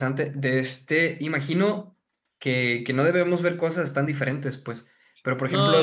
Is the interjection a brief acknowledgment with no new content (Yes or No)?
Yes